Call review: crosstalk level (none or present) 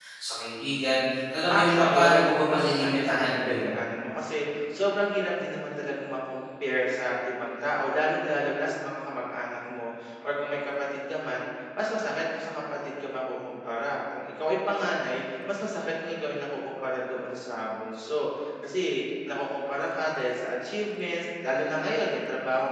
present